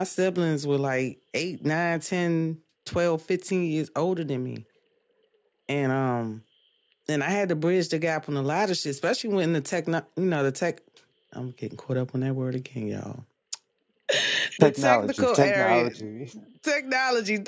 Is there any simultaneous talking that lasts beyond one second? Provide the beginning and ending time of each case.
14.6-15.9

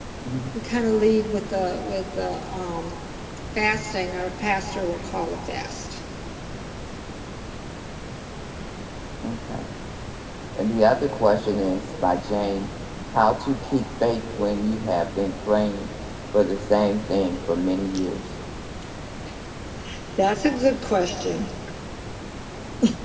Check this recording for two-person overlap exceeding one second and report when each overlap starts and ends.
none

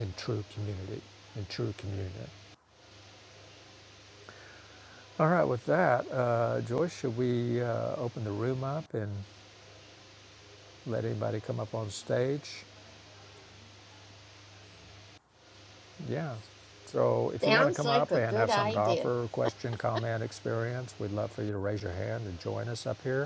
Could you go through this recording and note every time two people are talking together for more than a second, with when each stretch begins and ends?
17.4-19.1

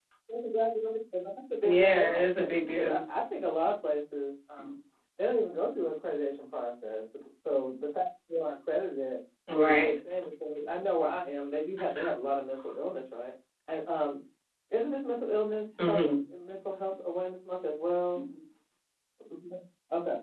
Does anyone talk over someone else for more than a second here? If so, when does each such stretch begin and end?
1.6-3.0

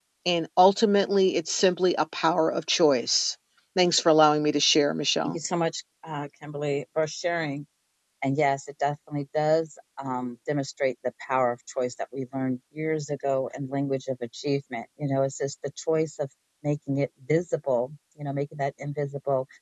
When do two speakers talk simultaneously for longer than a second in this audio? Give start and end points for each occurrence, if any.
none

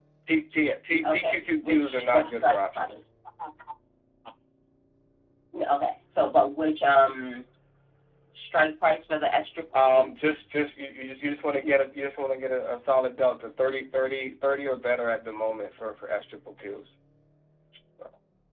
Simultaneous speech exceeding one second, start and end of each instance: 1.0-3.0

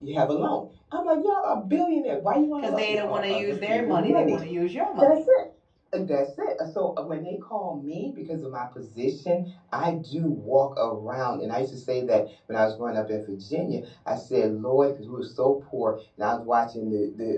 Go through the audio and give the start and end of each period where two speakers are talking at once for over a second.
2.6-4.4

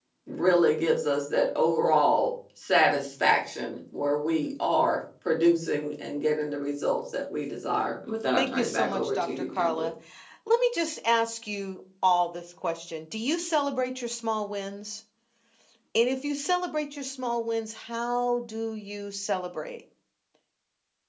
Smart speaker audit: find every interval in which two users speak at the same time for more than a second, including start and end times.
8.4-9.9

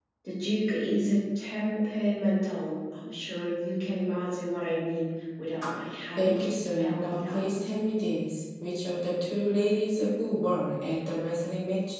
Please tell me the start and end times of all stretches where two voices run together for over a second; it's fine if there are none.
6.2-7.5

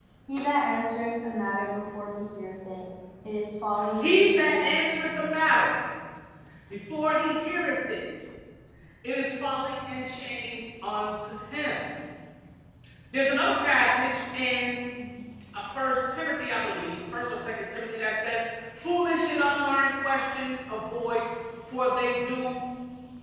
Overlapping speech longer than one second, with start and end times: 4.0-5.2

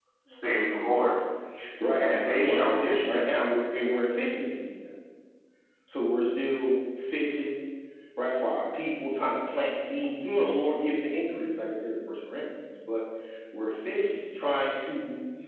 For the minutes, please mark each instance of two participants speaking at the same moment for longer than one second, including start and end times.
2.0-3.3

